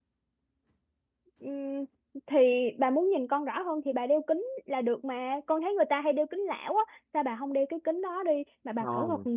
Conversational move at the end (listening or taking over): taking over